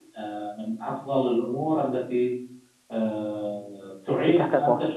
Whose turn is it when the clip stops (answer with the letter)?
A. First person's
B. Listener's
A